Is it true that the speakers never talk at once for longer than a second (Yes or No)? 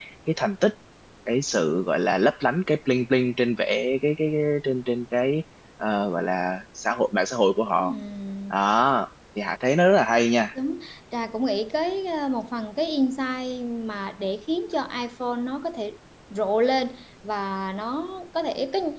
Yes